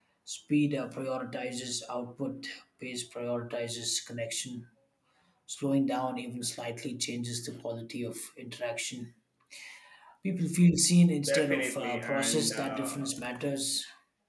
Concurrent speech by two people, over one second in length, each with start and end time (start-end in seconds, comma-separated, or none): 11.2-13.0